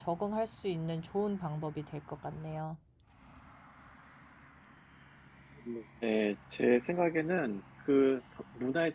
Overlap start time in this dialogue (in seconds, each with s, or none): none